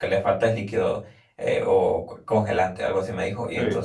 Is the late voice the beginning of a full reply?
No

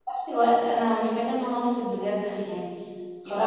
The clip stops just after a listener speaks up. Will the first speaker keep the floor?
No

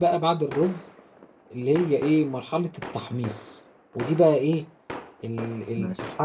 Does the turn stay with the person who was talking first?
Yes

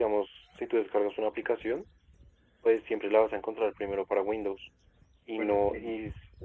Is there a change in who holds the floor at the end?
No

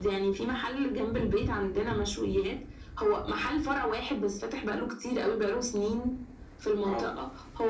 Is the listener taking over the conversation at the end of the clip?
No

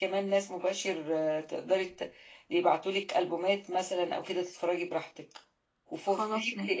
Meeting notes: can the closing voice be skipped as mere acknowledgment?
Yes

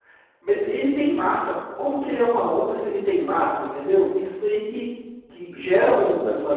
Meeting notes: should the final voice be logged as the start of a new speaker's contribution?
No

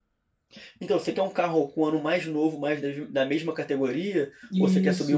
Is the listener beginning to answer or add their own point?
Yes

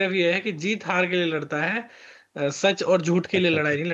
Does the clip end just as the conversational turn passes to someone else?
No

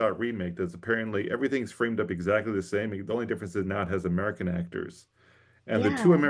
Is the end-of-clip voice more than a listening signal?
No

